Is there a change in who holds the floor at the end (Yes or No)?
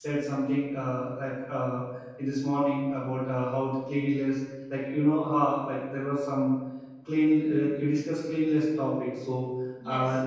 No